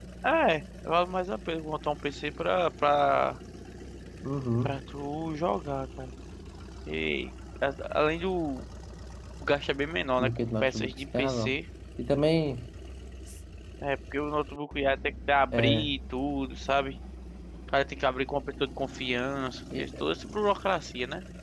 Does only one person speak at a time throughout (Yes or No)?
No